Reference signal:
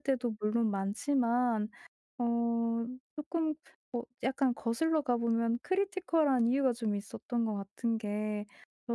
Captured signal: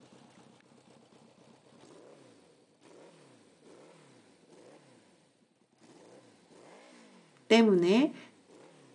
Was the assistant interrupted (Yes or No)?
Yes